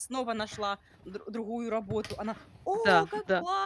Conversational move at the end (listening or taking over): listening